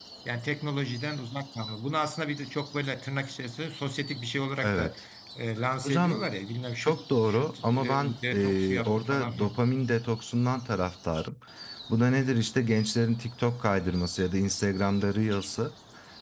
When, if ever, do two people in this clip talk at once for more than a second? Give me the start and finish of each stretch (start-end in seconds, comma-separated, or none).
6.8-9.6